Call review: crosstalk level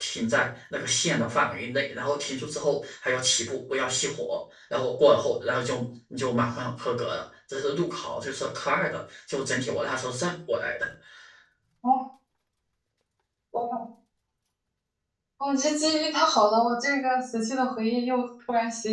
none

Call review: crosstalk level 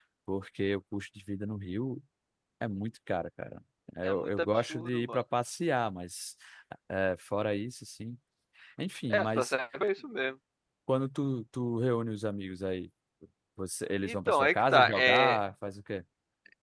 present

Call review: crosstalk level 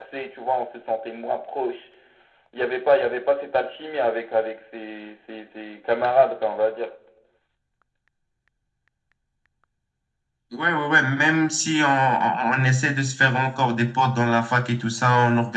none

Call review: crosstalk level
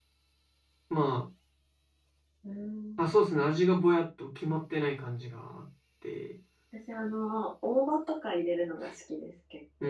none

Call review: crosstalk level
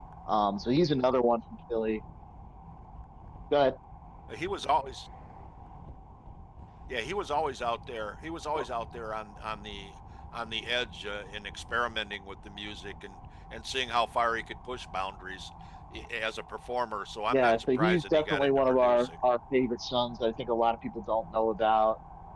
present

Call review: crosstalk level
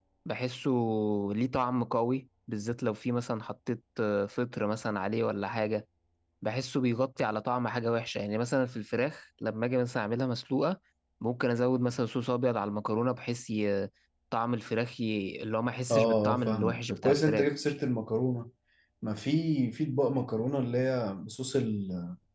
present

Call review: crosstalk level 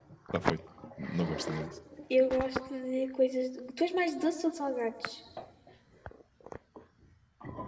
none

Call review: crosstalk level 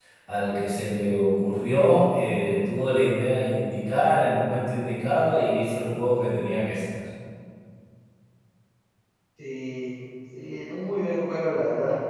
none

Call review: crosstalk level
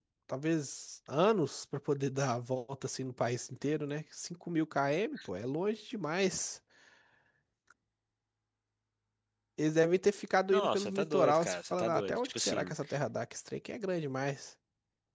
present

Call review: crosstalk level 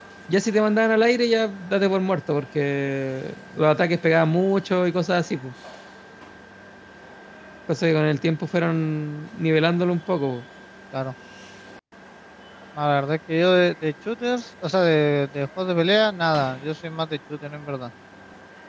none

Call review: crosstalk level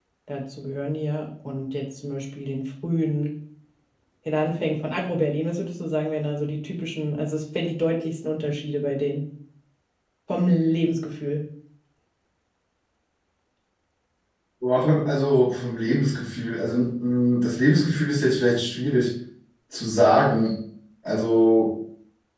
none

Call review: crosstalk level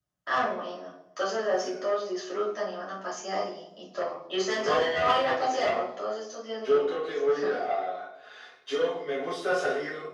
present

